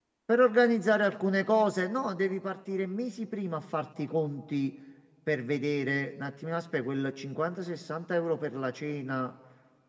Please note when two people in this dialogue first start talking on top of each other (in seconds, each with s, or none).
none